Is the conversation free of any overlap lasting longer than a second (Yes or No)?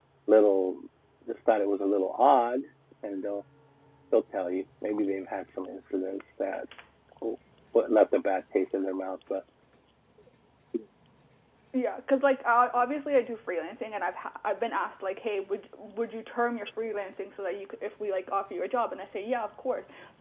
Yes